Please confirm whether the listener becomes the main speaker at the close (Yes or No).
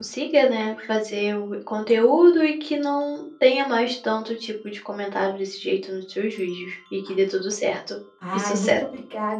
Yes